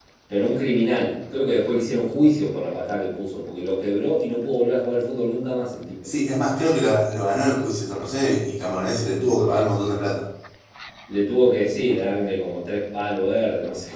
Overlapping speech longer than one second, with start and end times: none

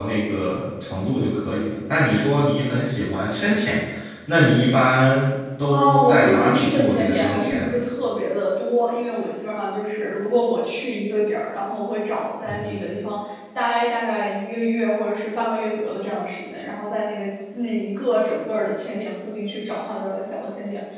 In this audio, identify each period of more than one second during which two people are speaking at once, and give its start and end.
5.7-7.8

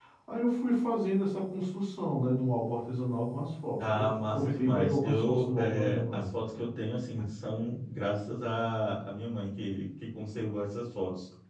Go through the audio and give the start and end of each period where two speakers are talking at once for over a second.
3.9-6.3

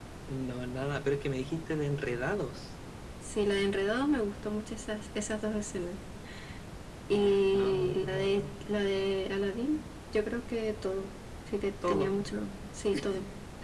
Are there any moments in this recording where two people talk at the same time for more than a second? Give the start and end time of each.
7.1-8.4

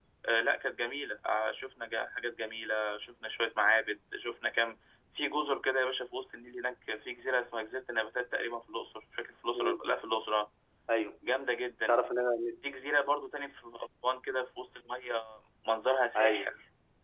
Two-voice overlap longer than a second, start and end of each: none

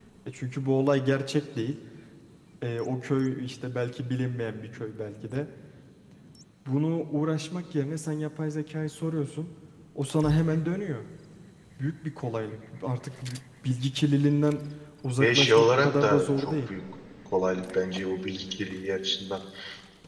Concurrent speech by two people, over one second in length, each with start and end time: 15.2-16.7

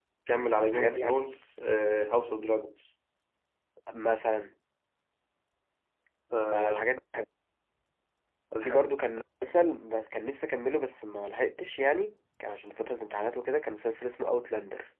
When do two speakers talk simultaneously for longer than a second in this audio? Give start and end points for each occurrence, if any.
none

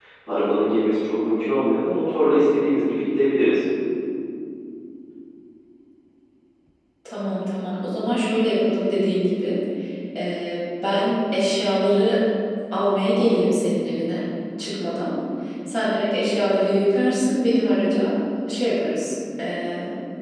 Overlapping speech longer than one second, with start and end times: none

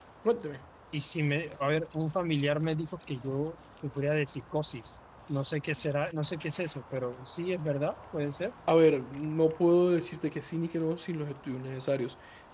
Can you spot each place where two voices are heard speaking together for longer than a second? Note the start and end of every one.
none

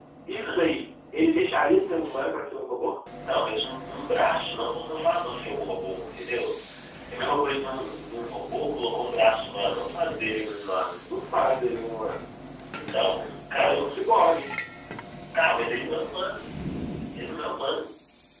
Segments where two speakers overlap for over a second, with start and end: none

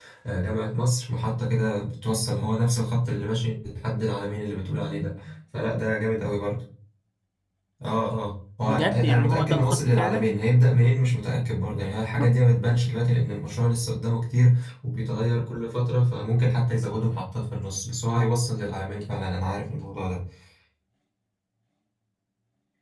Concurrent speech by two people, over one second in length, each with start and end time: 8.6-10.4

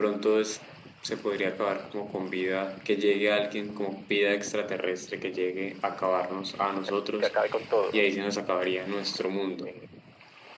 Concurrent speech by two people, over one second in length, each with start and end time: none

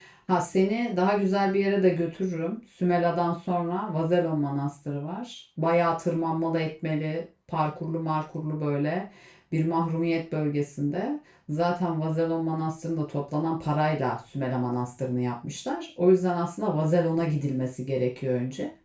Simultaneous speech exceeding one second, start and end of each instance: none

